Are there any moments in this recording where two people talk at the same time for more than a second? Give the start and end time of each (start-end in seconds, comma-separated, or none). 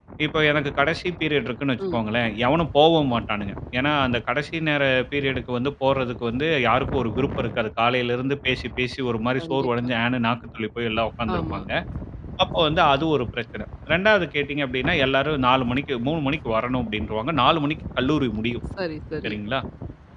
none